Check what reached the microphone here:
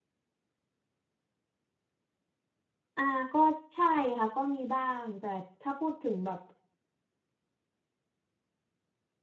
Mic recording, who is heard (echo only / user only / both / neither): user only